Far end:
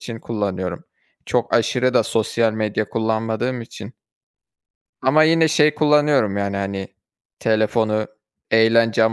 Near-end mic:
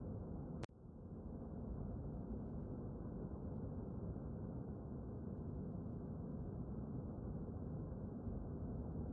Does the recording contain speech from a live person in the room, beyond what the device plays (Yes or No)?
No